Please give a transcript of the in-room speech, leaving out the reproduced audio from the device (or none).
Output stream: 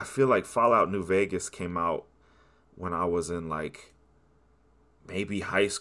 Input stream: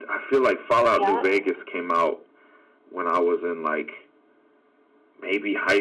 Yep.